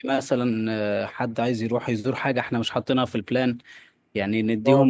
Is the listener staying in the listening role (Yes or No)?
No